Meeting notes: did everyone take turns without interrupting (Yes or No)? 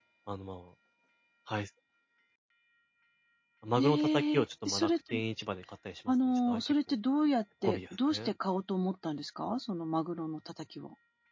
No